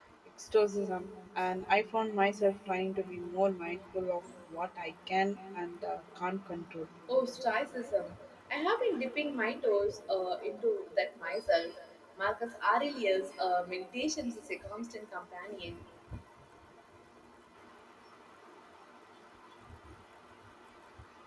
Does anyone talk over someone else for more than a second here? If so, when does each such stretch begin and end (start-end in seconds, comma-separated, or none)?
none